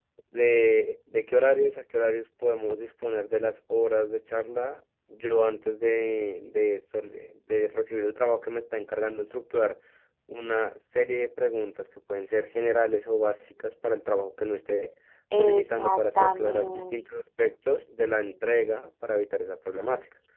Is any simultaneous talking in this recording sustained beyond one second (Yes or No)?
Yes